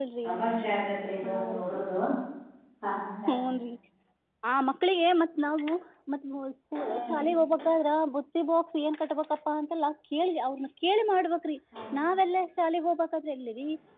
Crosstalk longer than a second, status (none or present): none